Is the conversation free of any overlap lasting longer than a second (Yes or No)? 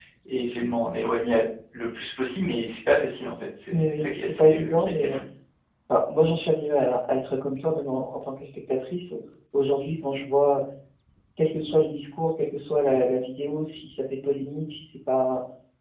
No